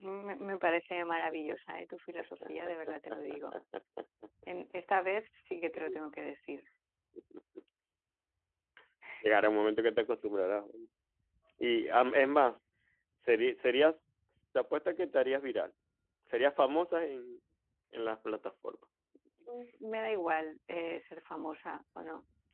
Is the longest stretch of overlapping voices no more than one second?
Yes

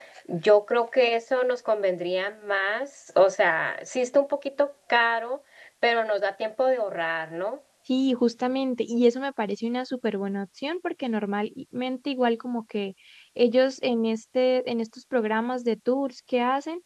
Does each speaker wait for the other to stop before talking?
Yes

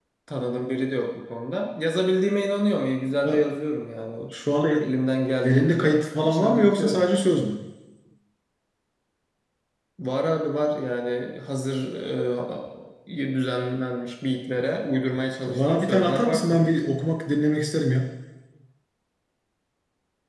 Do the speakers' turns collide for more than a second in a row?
Yes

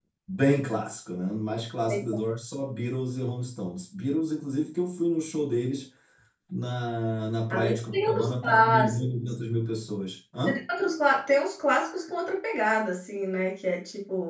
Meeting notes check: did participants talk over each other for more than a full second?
Yes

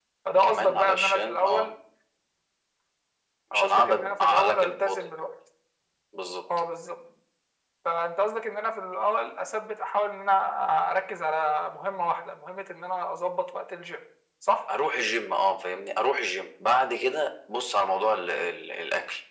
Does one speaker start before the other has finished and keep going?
Yes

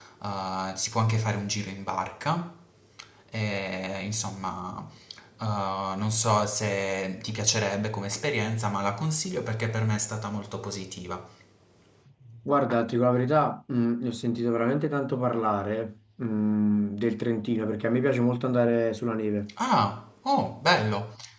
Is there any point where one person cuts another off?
No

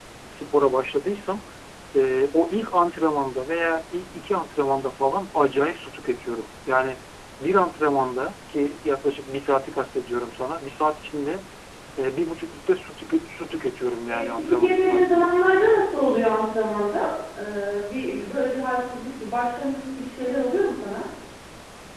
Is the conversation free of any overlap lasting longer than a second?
No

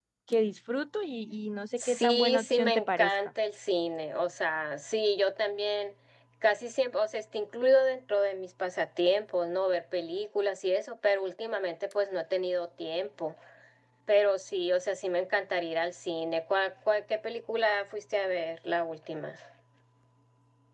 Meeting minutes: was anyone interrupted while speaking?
Yes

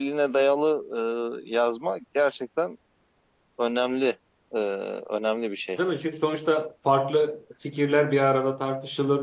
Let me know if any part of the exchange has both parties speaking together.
No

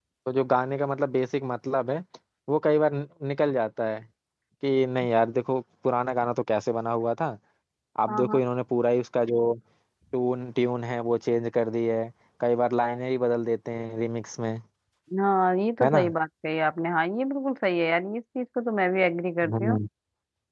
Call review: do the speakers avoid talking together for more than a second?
Yes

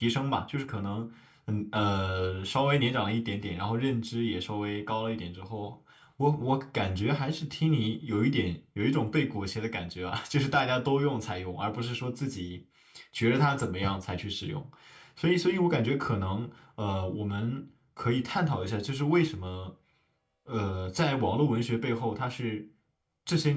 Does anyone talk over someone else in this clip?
No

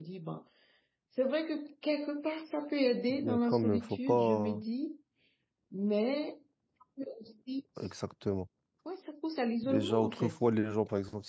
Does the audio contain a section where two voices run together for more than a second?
Yes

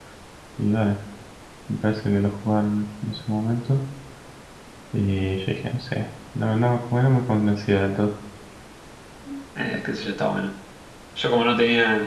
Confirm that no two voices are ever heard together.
Yes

